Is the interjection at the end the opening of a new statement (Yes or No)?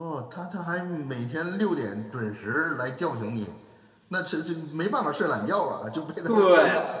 Yes